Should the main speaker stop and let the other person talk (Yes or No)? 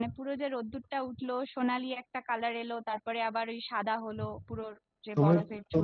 Yes